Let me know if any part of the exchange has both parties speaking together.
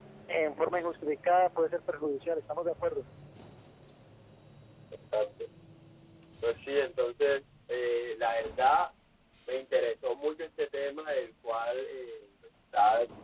No

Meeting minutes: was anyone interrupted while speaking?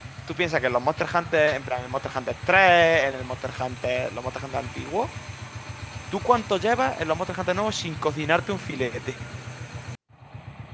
No

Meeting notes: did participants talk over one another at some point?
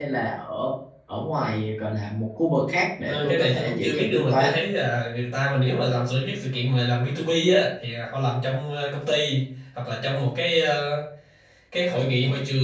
Yes, from 3.0 s

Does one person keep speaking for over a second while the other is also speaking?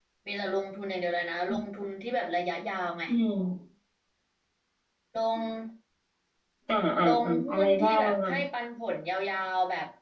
Yes, from 7.0 s

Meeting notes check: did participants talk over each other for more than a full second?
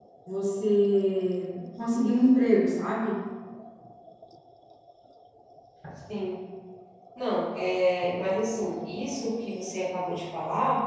No

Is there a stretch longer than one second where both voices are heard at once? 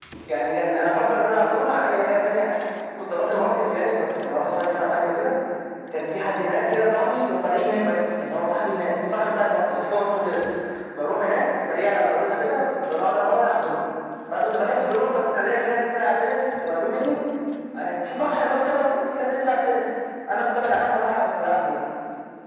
No

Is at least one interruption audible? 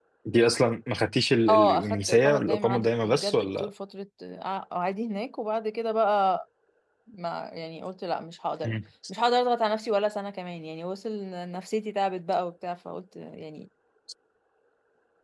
Yes, from 1.5 s

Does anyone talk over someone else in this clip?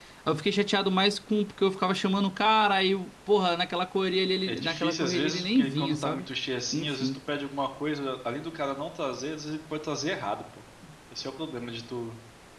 Yes, from 4.5 s

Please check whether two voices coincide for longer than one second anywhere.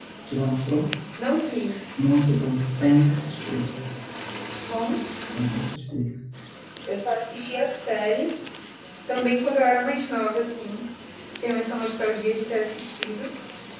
No

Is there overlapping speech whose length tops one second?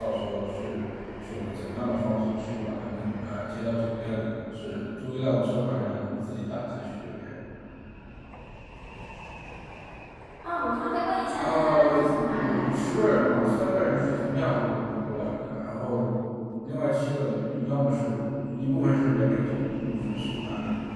Yes, from 11.4 s

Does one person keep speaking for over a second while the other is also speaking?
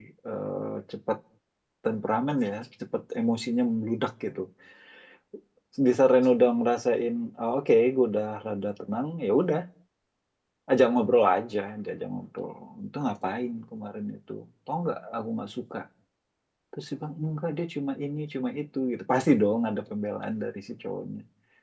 No

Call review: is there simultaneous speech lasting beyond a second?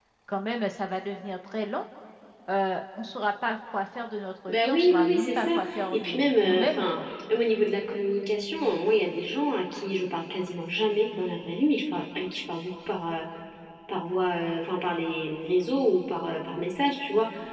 Yes, from 4.5 s

